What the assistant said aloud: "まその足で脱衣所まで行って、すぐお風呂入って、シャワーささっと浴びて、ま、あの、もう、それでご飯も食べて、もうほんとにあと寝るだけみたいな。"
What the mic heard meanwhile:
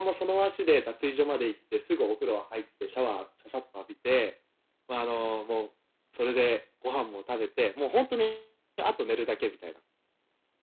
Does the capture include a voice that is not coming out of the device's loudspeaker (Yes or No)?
No